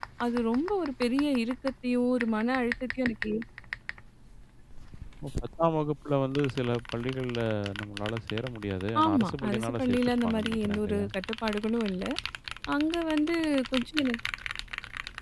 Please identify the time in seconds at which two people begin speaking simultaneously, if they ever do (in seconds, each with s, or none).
8.9 s